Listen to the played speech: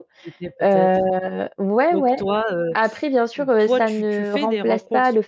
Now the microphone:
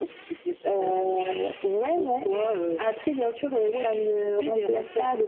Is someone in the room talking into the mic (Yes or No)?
No